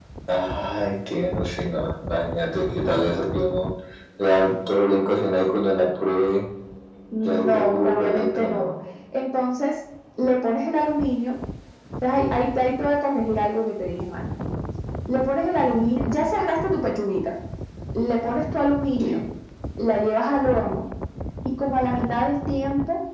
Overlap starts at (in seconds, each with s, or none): 7.2 s